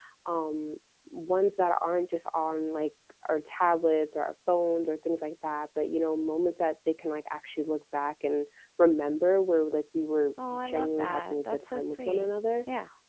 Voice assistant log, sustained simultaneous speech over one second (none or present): present